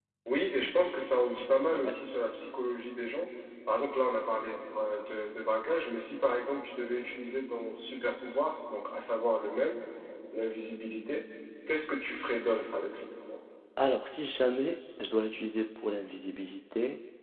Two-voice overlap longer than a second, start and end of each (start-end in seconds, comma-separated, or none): none